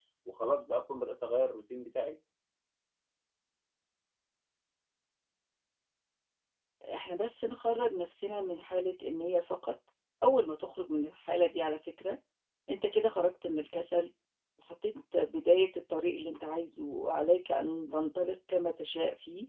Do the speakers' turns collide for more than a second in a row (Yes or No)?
No